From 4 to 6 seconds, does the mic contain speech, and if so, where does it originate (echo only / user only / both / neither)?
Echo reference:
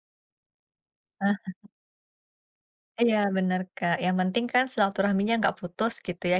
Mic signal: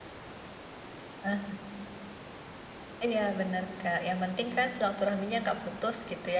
echo only